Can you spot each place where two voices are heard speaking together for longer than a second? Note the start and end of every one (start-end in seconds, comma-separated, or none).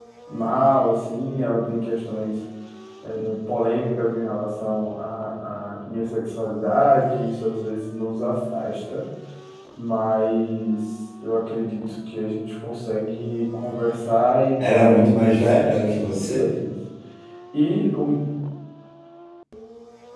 14.6-16.5